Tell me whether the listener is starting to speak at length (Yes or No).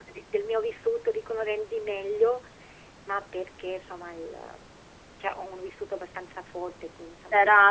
Yes